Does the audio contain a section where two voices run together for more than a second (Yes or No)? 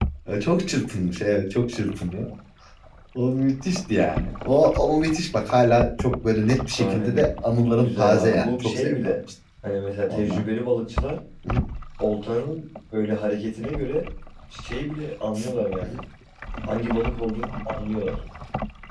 Yes